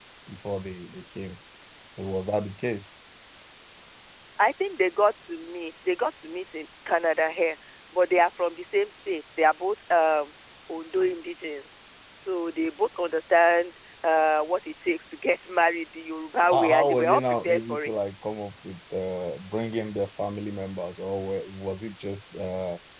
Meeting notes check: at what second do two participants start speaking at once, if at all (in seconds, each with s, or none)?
16.4 s